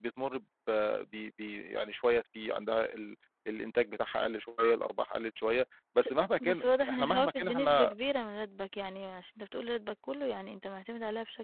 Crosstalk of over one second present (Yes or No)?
Yes